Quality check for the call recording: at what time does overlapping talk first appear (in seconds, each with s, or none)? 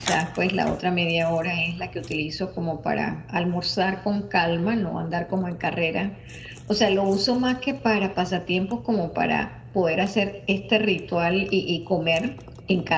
none